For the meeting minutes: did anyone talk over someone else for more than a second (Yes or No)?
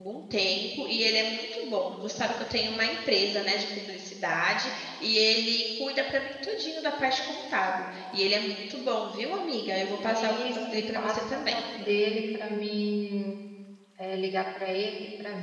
Yes